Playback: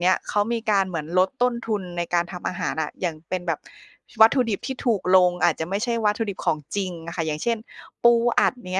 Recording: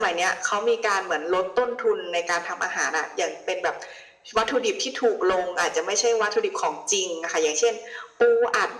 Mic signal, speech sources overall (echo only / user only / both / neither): echo only